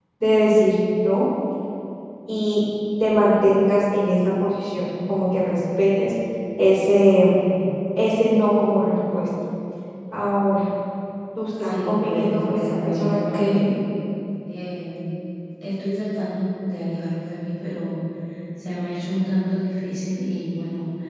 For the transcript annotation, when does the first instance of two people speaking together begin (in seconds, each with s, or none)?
11.6 s